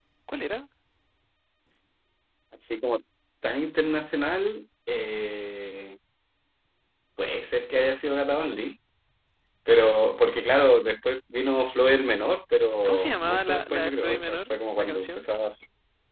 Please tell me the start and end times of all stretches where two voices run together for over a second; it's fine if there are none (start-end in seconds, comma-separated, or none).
12.8-15.2